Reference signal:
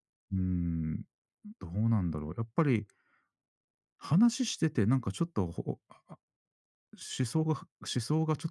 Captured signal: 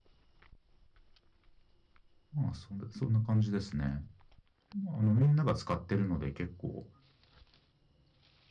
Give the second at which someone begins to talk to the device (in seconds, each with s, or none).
2.3 s